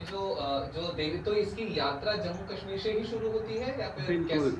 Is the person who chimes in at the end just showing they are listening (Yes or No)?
No